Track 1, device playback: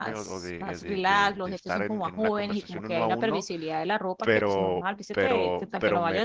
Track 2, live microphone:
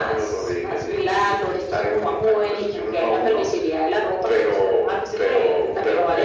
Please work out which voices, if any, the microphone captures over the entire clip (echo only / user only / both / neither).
echo only